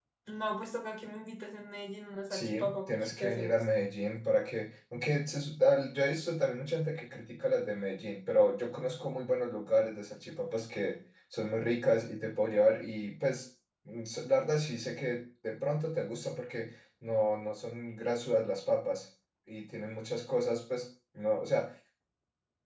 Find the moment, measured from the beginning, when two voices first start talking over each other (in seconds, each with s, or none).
2.3 s